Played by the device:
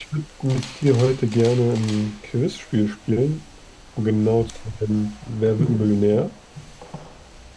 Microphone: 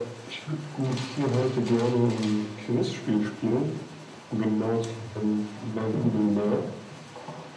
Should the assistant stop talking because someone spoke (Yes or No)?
No